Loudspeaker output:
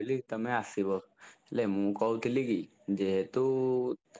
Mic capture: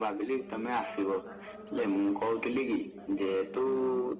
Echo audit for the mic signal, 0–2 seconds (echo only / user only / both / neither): both